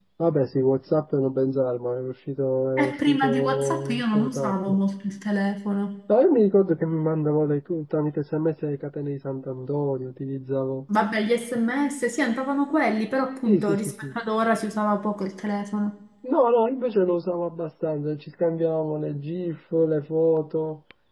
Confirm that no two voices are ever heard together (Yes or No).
No